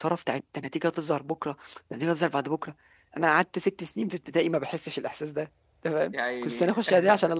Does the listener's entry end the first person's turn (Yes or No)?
No